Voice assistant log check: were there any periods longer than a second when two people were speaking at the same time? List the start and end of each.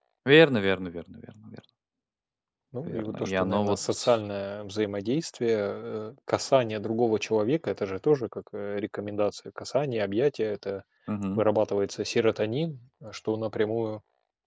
2.9-4.1

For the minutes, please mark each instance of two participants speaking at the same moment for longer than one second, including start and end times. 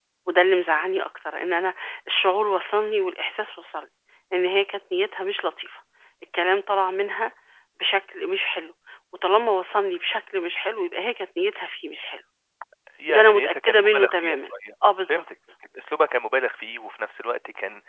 13.1-14.4

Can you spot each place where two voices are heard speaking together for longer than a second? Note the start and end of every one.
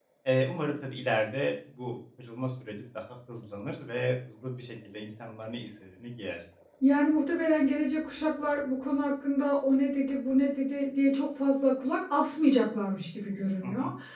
none

